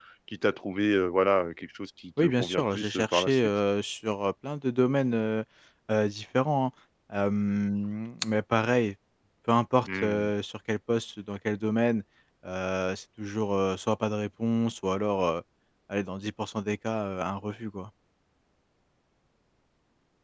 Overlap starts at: 2.2 s

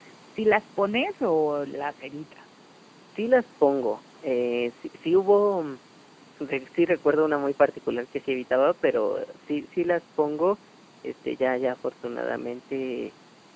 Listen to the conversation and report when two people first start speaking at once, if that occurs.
none

